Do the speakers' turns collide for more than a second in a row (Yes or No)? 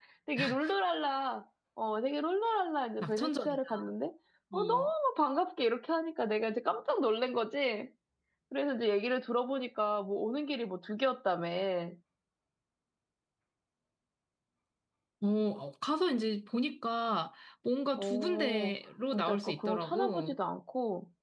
Yes